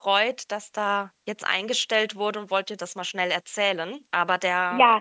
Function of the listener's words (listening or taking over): taking over